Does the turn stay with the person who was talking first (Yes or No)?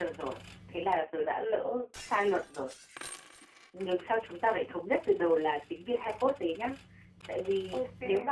Yes